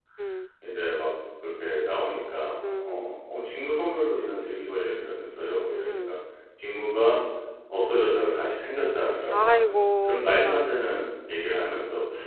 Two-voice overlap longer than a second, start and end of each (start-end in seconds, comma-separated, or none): 9.3-10.7